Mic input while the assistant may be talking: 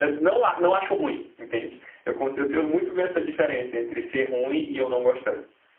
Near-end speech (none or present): present